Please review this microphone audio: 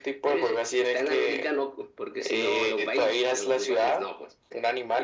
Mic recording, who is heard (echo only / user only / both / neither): echo only